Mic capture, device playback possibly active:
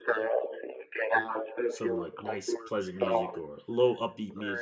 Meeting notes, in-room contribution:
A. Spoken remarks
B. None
A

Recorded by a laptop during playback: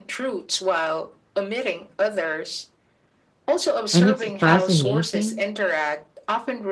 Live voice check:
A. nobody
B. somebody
B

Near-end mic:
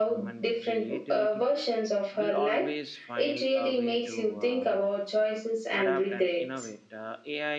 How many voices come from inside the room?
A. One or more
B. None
A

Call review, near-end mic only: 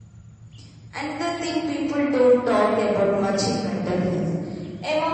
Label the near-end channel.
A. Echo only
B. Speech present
A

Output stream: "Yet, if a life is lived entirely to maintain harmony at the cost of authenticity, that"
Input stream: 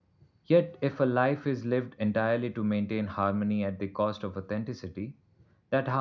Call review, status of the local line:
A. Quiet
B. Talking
A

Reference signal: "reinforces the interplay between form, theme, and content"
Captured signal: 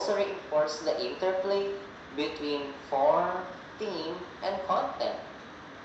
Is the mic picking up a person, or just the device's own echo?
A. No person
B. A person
A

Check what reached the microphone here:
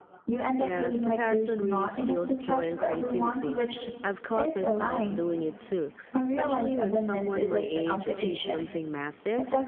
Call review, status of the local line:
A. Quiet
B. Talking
B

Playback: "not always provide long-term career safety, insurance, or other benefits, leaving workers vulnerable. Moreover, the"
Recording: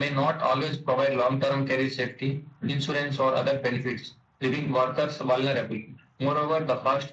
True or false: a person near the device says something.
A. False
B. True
A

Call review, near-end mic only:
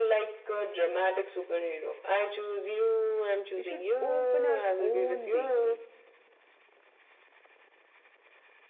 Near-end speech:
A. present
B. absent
A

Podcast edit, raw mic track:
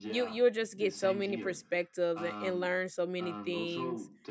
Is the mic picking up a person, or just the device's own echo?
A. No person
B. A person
B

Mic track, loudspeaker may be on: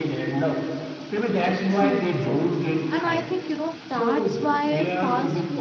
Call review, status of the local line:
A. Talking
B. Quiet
A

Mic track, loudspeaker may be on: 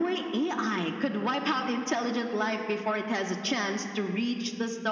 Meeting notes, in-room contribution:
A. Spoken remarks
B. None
B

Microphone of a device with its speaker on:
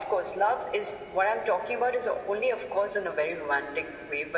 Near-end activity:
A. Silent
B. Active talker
A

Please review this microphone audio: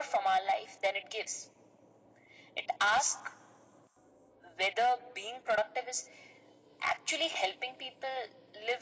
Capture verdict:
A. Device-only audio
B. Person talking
A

